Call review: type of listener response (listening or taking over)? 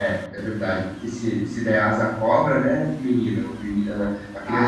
taking over